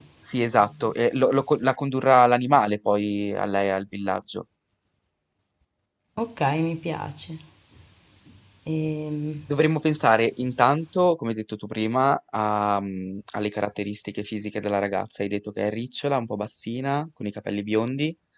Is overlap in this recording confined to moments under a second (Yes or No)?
Yes